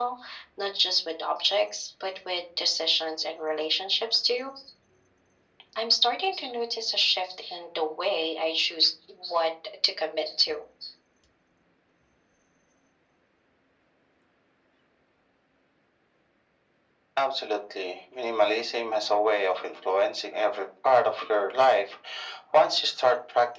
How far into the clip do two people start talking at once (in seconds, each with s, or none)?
none